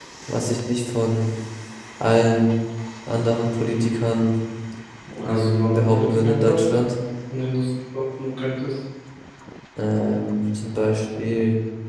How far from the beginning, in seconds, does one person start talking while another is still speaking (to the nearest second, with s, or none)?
5 s